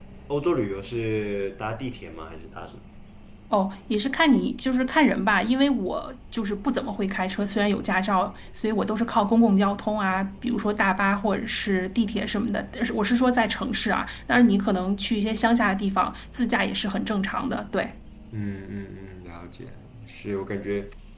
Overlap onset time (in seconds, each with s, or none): none